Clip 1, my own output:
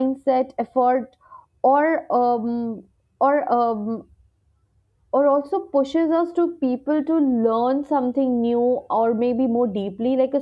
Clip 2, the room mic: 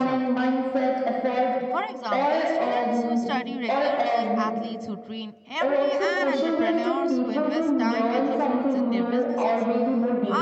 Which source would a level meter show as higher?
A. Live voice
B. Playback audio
B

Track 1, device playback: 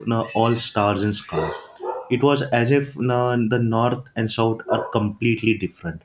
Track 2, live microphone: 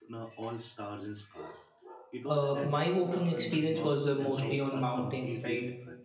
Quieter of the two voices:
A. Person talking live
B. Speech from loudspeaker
B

